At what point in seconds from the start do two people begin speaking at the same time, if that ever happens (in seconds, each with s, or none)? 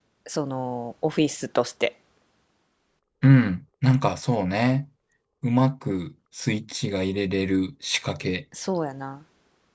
none